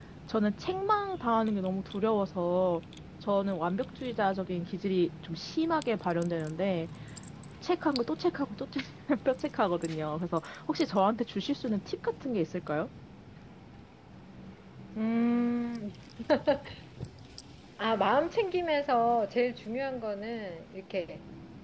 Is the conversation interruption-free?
Yes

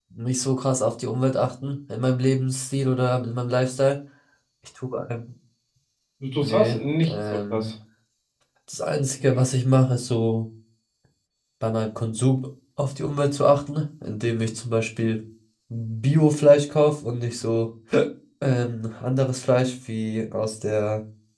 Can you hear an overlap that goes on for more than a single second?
Yes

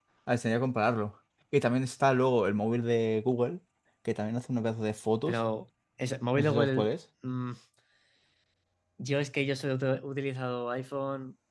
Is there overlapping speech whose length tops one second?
No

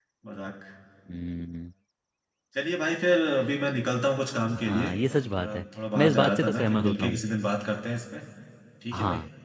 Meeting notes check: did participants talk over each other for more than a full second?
Yes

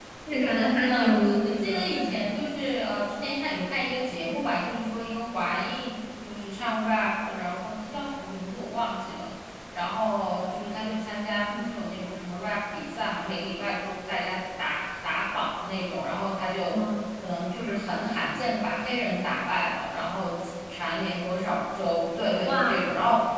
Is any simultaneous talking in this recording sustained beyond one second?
Yes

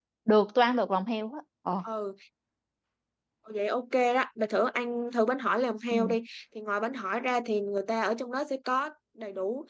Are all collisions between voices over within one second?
Yes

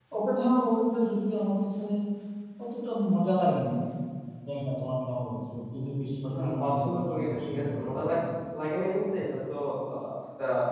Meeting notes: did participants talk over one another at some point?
Yes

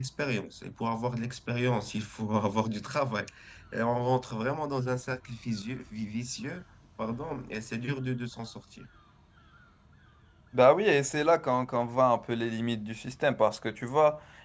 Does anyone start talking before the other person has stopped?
No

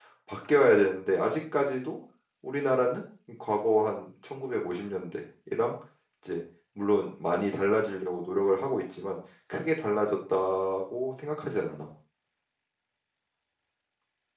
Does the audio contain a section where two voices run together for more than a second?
No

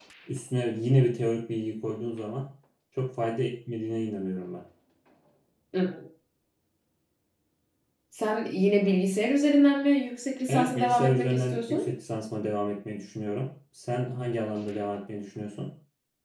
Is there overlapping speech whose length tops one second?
Yes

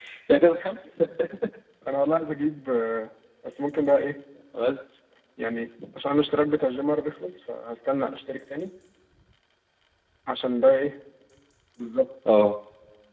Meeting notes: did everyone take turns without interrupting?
Yes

